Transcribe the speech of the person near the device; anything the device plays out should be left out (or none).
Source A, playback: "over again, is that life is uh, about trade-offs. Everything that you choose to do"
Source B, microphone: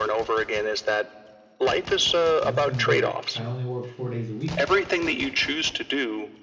and it's been great. I only work 4 days a week.